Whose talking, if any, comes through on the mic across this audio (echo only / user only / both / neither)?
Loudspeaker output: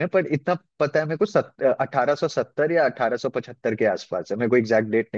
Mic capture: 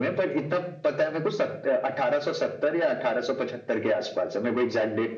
echo only